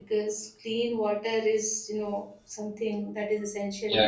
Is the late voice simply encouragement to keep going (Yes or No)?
No